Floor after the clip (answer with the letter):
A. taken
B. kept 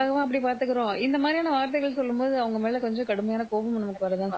A